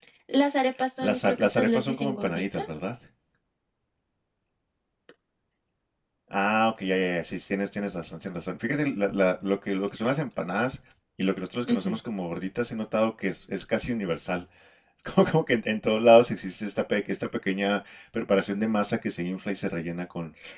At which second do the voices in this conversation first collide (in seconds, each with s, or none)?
1.0 s